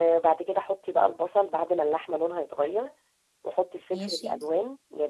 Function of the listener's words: listening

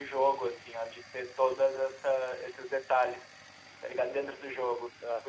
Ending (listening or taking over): listening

